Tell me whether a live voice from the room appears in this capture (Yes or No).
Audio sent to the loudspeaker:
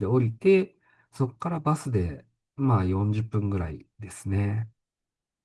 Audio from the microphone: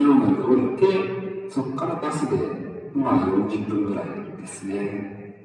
No